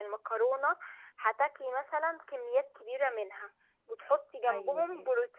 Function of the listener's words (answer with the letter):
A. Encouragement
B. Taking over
A